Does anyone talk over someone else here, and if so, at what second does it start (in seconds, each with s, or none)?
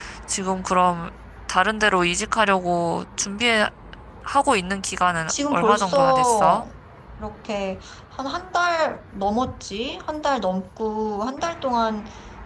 5.3 s